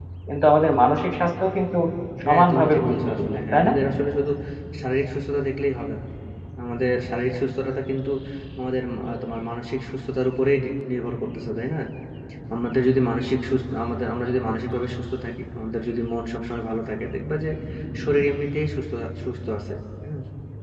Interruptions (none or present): present